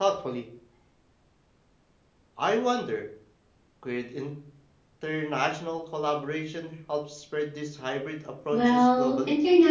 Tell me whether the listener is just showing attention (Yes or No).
No